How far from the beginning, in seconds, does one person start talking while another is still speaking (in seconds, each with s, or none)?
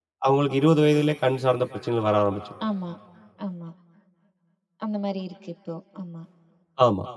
none